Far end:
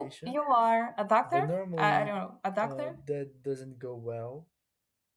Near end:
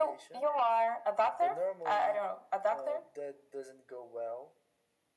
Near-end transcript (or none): none